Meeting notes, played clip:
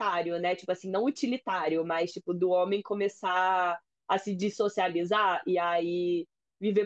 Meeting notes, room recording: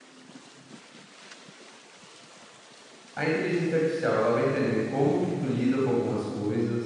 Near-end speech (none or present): present